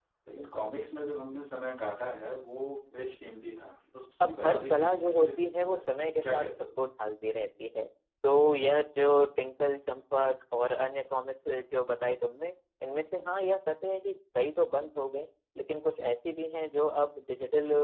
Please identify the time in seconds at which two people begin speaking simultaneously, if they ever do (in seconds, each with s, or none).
4.2 s